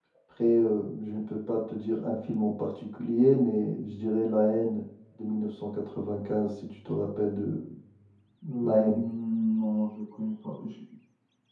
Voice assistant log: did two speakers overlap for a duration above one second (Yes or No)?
No